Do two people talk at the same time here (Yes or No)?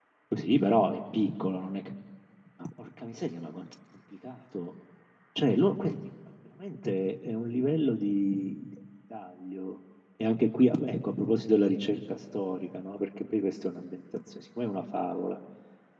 No